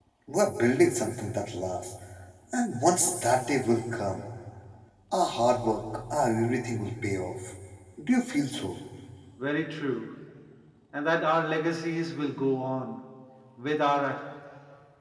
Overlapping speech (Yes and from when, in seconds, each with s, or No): No